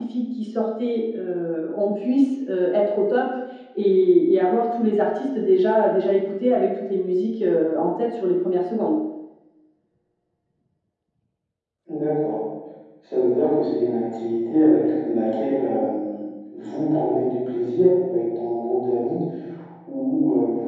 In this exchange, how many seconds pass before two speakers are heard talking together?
none

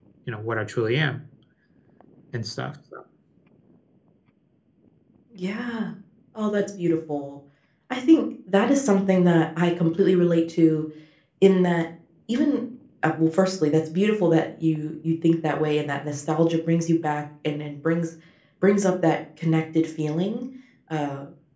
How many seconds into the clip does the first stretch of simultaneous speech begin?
none

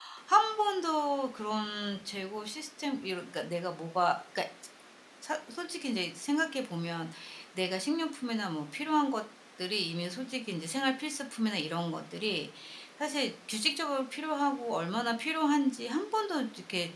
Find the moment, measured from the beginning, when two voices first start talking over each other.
none

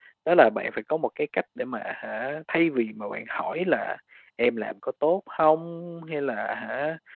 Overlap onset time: none

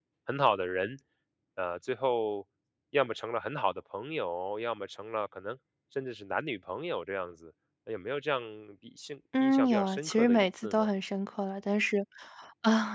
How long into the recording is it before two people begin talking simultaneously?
9.4 s

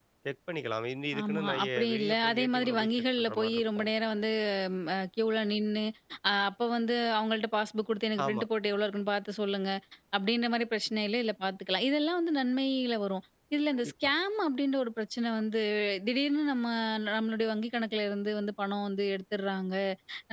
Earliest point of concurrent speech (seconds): 1.2 s

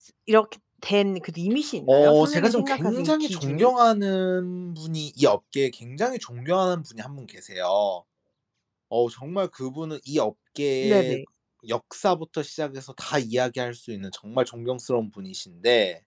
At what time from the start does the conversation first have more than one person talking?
1.9 s

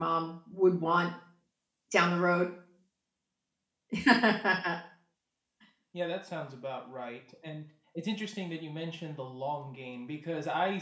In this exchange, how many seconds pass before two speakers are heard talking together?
none

